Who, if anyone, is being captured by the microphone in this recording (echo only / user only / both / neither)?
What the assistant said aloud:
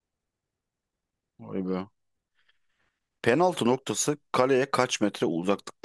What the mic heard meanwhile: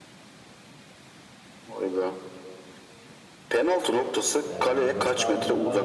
both